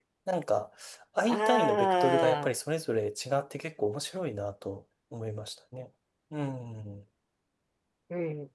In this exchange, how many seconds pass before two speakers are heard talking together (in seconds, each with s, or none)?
1.3 s